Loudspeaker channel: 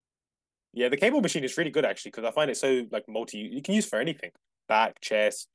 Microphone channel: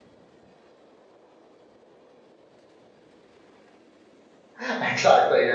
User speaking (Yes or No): Yes